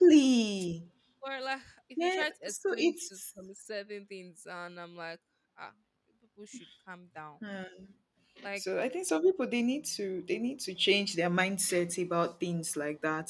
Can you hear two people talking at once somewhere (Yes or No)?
Yes